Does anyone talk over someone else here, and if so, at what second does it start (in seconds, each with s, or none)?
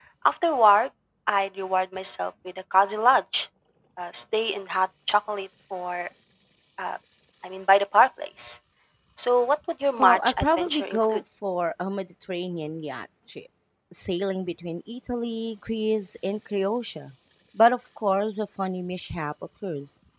10.0 s